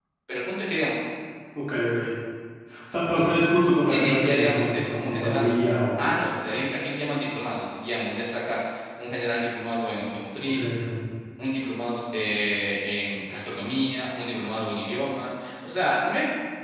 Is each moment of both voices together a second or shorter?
No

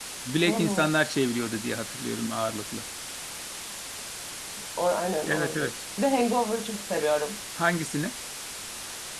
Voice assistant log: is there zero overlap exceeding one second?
Yes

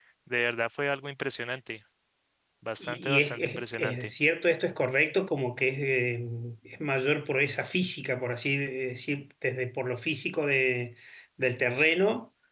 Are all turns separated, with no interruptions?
No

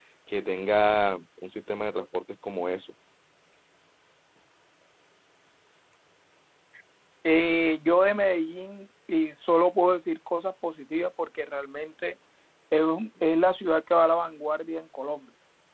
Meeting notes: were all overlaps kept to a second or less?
Yes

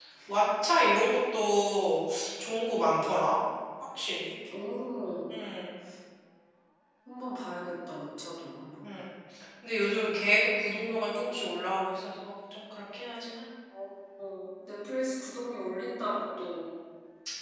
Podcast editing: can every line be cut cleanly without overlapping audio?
Yes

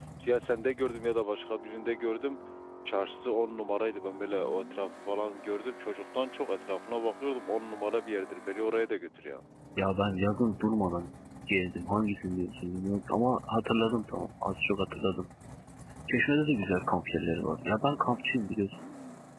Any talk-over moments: No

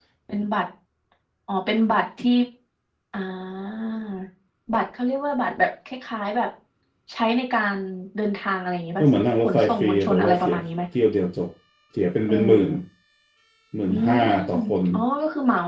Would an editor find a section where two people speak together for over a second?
Yes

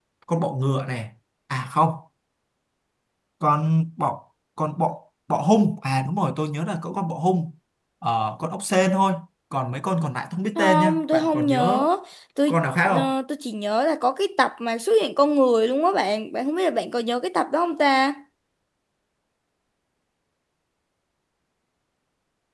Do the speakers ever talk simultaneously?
Yes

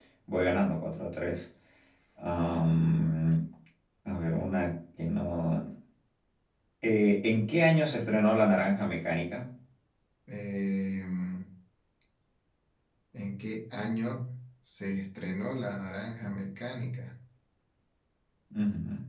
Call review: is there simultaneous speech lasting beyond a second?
No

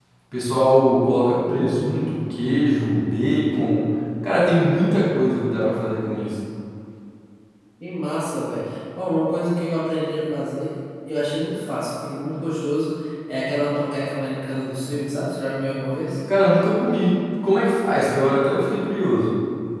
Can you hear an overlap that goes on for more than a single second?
No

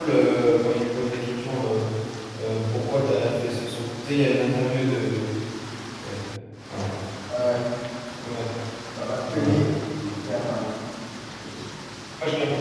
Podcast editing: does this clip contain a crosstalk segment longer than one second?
No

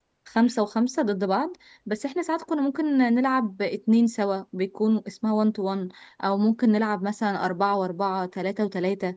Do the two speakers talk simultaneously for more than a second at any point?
No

